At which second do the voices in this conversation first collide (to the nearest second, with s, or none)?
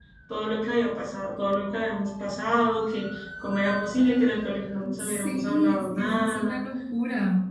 5 s